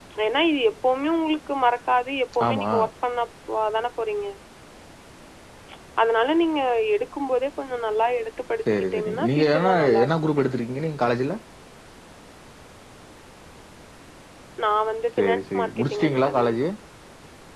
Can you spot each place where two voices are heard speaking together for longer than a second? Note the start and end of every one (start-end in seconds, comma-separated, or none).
8.7-10.1, 15.2-16.4